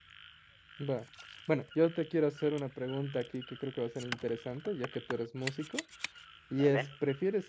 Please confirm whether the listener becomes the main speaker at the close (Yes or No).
No